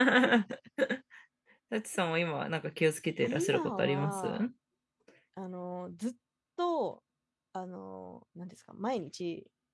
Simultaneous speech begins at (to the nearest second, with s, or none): 3 s